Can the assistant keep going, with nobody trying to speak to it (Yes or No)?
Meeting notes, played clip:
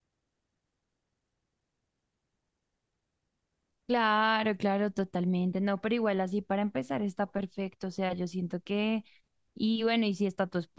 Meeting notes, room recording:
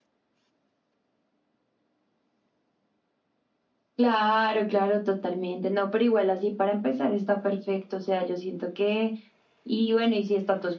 Yes